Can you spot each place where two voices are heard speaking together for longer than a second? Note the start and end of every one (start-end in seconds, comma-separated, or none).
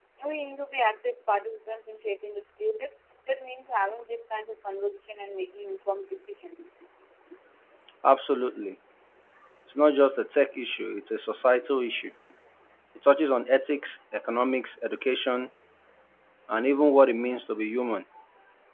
none